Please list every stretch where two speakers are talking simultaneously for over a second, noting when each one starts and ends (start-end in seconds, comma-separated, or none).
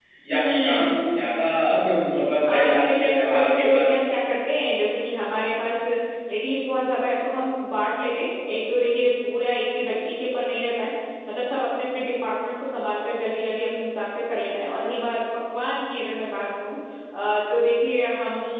2.4-3.9